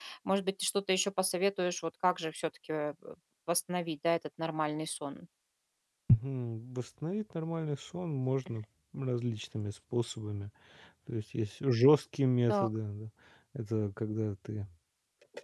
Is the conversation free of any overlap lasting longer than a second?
Yes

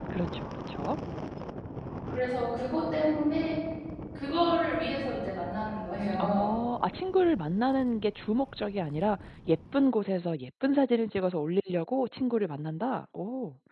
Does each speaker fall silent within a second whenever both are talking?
Yes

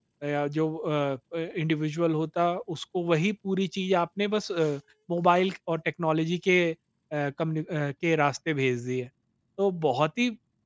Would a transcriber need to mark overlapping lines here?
No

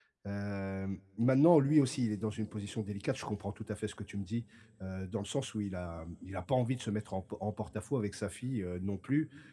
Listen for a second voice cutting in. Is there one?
No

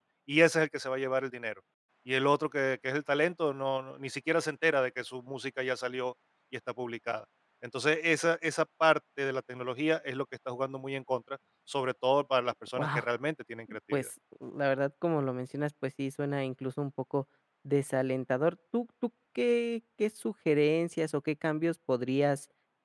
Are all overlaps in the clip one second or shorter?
Yes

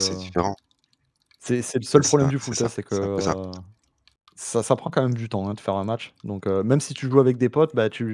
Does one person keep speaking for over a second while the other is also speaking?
Yes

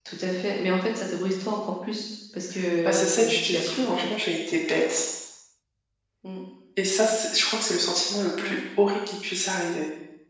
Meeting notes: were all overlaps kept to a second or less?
No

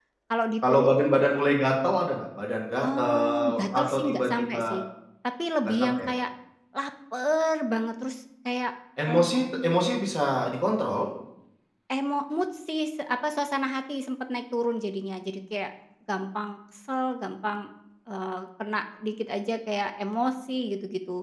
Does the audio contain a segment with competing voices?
Yes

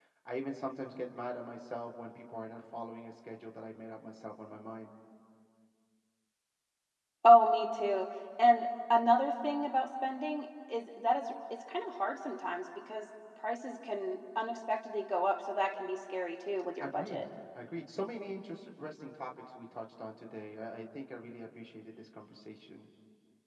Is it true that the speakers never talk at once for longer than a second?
Yes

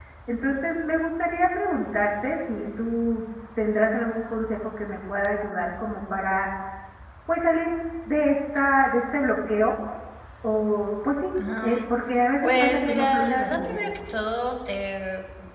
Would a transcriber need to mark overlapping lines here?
Yes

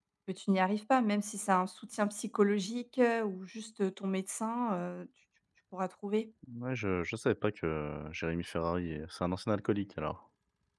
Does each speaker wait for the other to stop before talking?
Yes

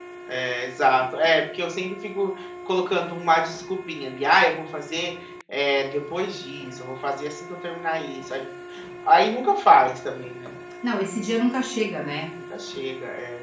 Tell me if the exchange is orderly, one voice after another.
Yes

